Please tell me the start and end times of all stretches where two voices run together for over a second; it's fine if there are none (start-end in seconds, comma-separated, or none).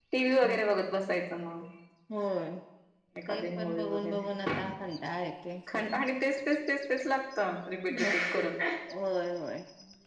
3.3-4.5